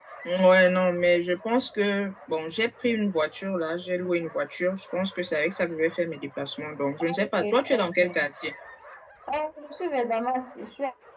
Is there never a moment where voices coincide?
No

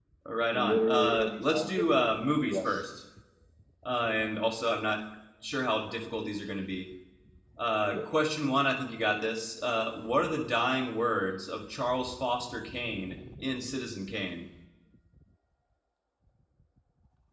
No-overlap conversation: No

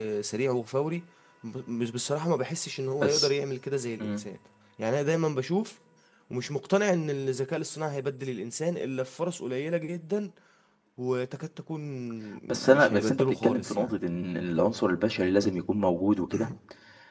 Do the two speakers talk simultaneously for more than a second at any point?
Yes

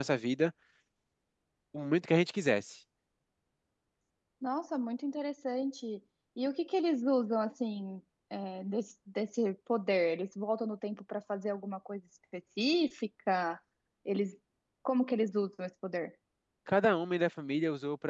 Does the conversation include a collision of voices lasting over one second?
No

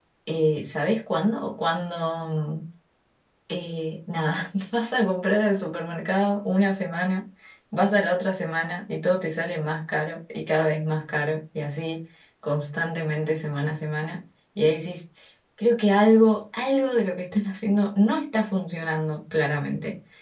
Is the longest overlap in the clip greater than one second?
No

